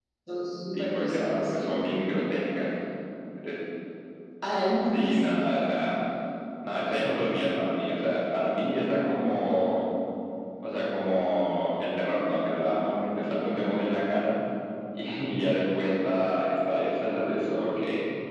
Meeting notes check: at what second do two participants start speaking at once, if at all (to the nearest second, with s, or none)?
1 s